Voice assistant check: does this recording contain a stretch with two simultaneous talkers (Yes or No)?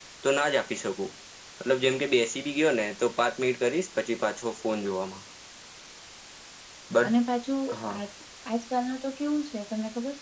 No